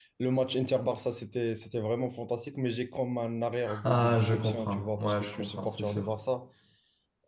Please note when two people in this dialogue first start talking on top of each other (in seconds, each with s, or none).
3.7 s